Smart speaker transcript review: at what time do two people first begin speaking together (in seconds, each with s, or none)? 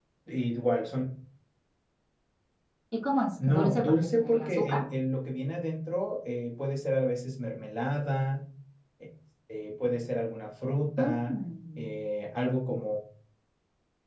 3.4 s